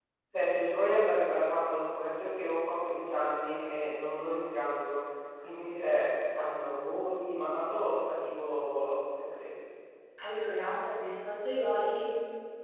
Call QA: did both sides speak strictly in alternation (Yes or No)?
Yes